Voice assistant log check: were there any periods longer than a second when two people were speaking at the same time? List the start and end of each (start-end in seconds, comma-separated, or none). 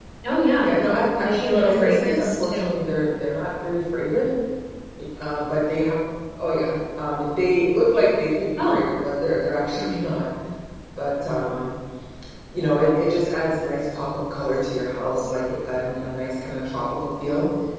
0.6-2.7